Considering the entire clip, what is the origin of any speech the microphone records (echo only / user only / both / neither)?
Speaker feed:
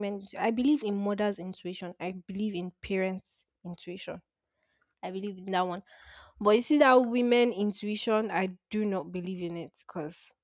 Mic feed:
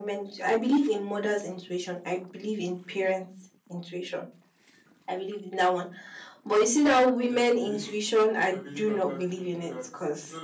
both